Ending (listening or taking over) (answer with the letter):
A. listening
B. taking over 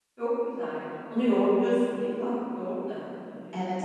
B